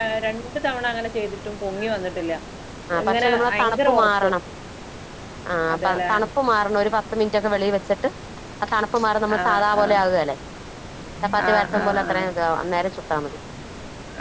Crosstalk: present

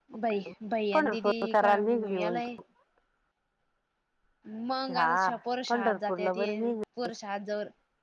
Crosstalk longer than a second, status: present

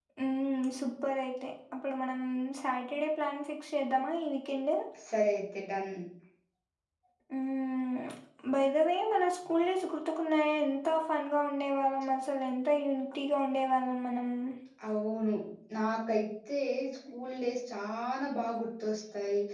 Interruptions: none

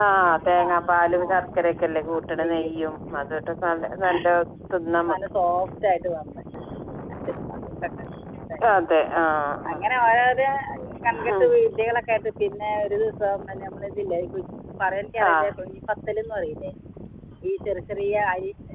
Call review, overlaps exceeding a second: none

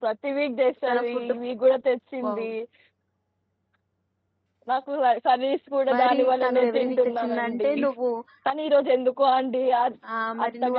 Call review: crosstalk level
present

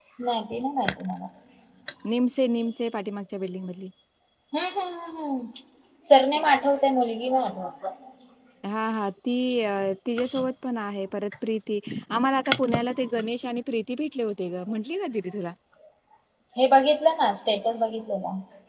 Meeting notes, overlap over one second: none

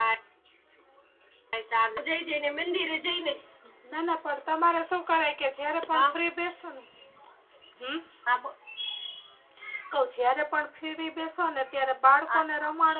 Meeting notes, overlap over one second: none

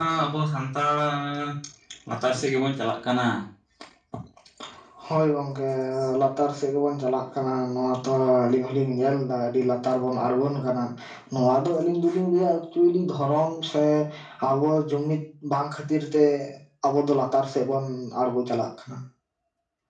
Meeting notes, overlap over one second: none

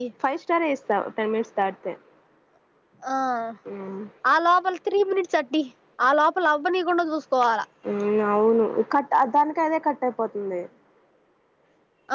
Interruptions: none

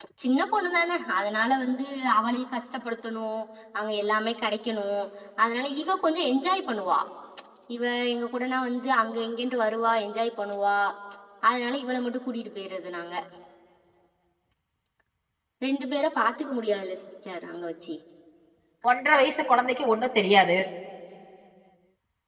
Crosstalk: none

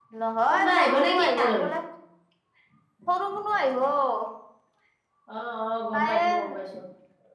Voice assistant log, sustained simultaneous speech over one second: present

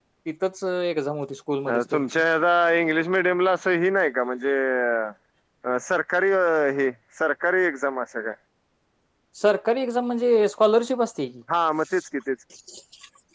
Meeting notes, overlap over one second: none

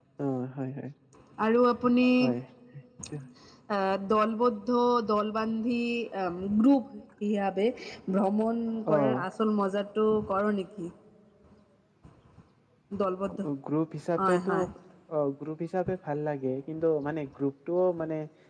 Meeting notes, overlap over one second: none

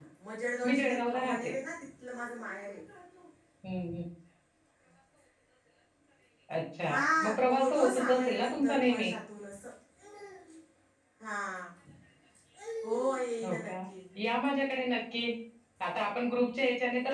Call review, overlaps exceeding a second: present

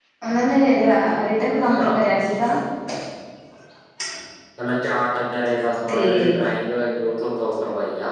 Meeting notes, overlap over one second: none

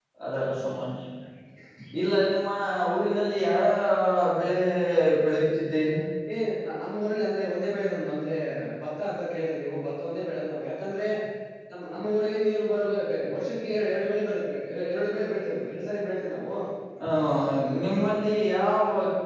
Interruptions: none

